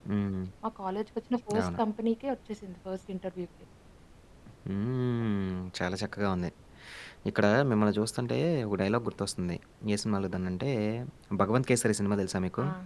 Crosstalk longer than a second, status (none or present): none